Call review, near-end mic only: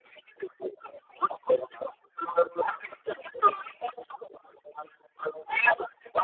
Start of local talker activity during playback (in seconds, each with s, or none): none